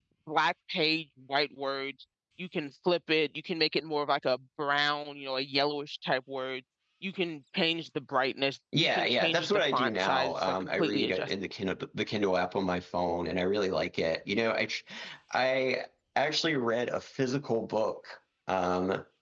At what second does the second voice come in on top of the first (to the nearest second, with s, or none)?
9 s